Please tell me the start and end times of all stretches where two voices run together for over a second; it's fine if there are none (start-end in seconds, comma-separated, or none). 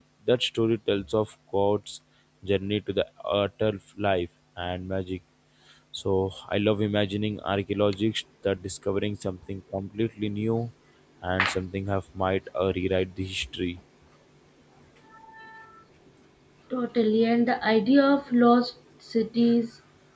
none